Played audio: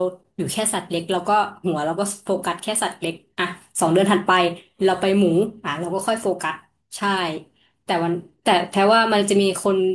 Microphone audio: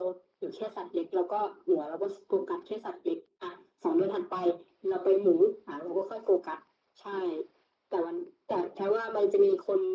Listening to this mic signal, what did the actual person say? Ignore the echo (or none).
none